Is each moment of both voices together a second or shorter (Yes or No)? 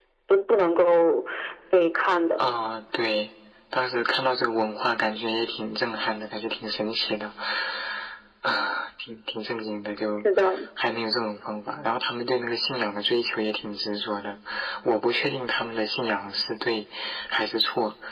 Yes